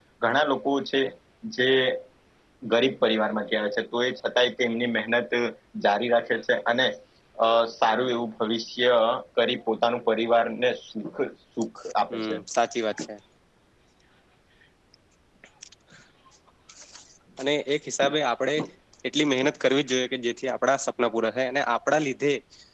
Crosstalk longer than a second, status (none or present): none